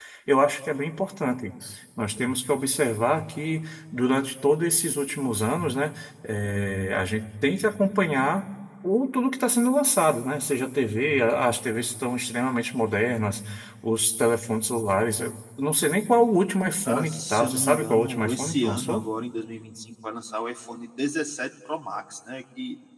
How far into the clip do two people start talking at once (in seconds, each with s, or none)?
16.9 s